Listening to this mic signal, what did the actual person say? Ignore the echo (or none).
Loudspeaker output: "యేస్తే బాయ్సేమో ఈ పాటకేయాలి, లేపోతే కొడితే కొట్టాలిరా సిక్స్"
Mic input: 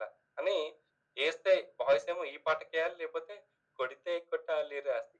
none